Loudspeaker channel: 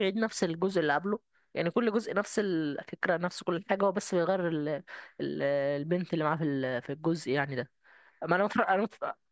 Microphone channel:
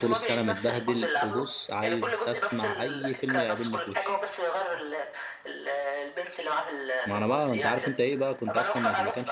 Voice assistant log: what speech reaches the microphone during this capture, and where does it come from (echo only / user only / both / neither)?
both